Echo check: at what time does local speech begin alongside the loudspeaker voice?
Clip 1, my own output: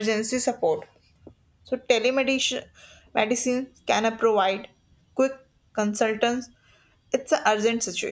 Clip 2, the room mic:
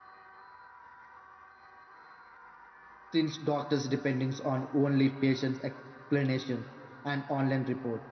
3.1 s

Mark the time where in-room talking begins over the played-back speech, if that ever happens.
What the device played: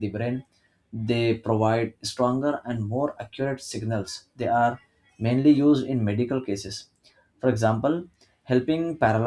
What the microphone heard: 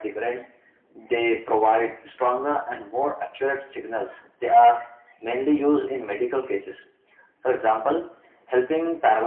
none

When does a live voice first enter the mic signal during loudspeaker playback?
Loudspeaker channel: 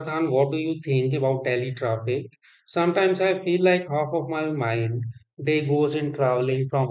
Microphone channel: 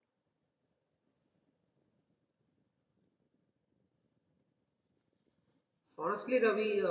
6.0 s

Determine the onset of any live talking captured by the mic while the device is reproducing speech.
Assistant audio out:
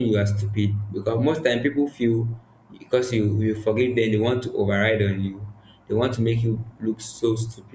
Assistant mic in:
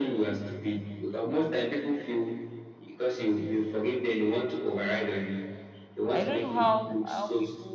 6.1 s

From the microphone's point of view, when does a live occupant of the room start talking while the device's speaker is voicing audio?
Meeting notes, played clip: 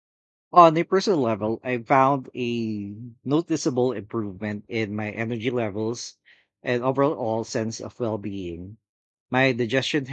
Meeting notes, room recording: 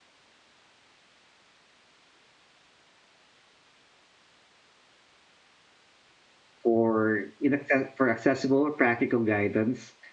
6.6 s

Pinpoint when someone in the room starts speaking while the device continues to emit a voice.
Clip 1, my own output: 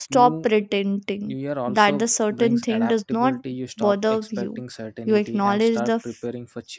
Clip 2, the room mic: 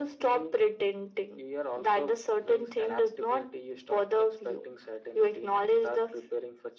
none

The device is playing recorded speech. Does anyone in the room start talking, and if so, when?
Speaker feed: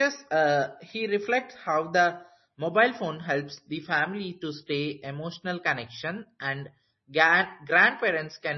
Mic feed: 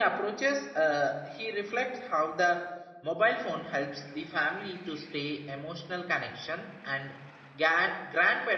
none

